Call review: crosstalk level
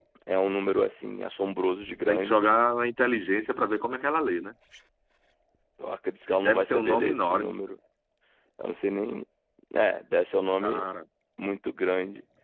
present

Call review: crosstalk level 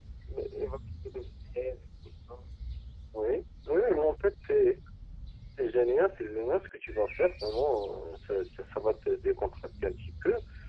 none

